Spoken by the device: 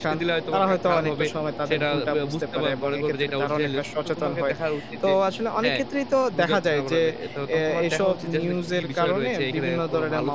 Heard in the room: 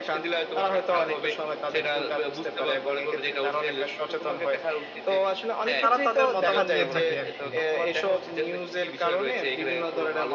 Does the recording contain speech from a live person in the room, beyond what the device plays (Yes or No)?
Yes